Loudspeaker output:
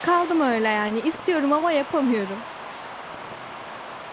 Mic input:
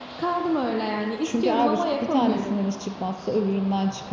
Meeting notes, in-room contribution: present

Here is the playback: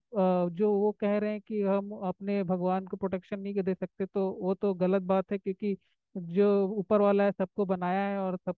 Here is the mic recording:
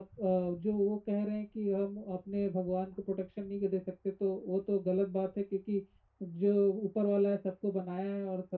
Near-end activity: none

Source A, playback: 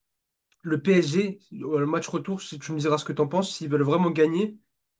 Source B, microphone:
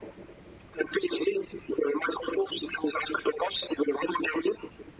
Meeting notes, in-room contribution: none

